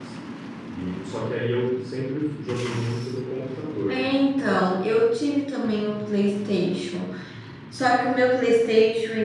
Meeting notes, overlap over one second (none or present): none